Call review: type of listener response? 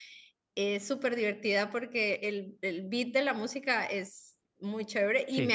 listening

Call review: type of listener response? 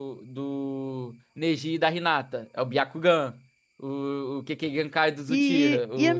taking over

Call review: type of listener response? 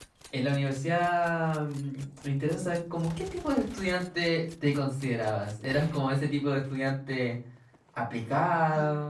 listening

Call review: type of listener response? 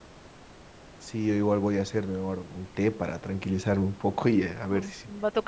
taking over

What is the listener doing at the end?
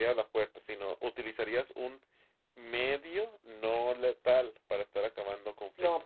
taking over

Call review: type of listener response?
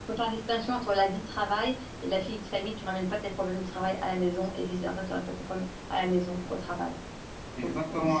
taking over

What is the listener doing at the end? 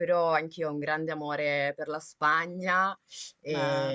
listening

